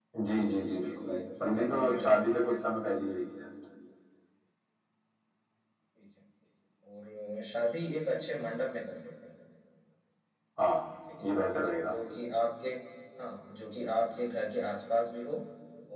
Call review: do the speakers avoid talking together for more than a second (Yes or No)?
No